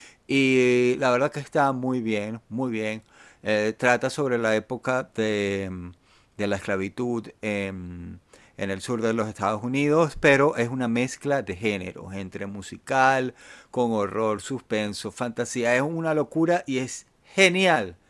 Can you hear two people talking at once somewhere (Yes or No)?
No